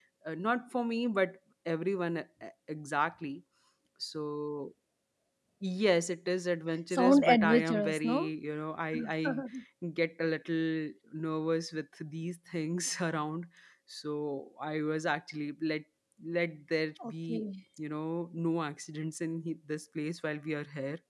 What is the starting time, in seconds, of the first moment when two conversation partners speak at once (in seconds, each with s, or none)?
6.9 s